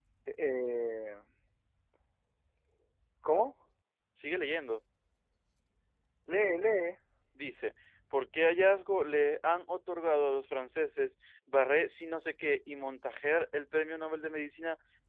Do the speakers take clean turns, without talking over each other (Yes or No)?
Yes